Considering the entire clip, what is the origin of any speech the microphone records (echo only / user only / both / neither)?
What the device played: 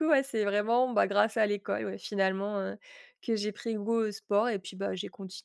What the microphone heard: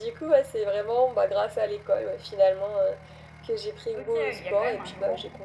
both